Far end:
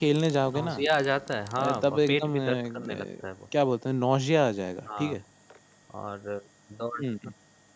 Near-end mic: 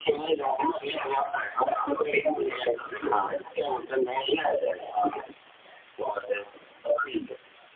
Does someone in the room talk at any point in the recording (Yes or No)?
Yes